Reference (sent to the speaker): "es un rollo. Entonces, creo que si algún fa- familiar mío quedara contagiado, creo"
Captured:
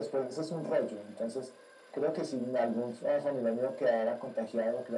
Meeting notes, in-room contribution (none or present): none